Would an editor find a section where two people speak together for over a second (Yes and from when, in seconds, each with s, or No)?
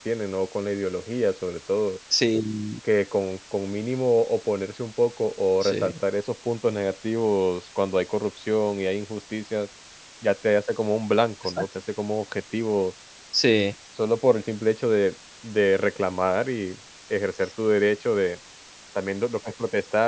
No